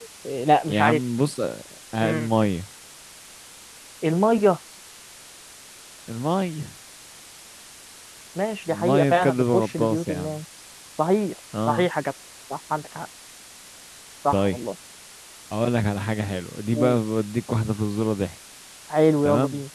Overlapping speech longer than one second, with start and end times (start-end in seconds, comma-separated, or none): 8.7-10.4